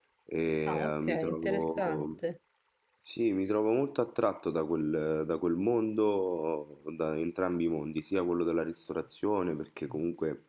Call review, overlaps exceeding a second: present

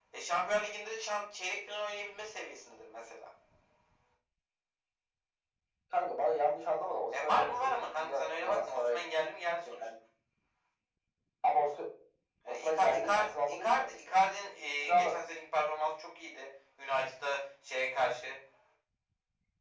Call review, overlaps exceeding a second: present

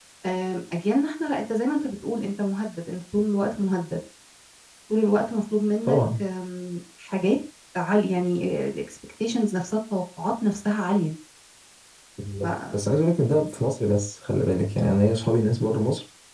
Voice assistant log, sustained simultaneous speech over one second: none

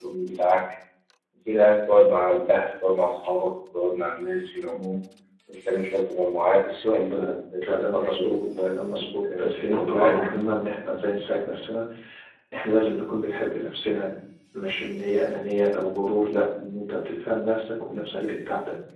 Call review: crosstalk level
present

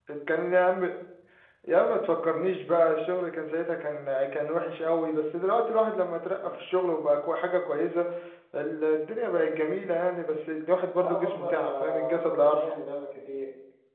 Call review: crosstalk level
present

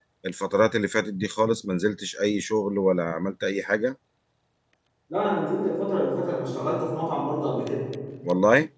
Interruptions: none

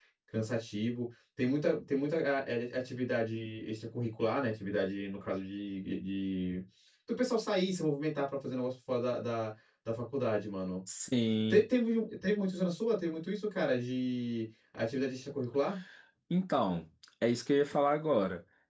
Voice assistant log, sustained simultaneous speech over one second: none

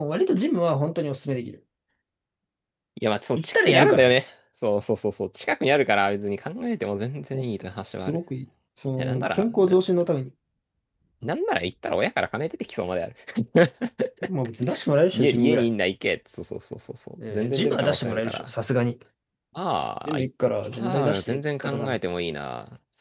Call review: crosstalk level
present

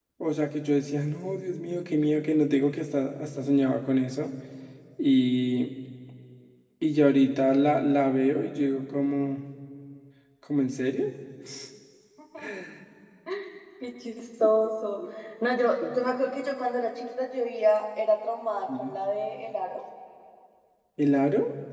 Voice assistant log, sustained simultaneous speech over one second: none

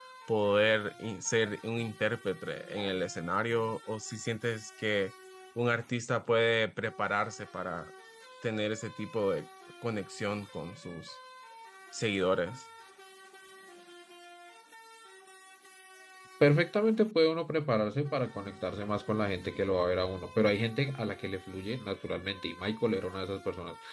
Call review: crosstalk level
none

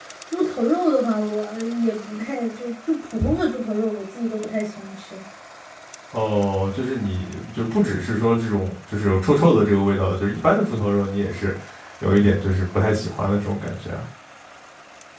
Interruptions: none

